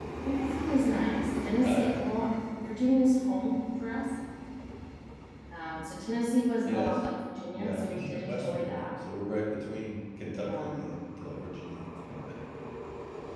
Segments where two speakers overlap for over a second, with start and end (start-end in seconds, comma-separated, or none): 7.5-8.8